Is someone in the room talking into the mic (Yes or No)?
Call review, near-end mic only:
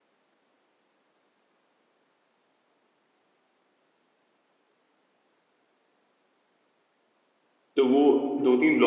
Yes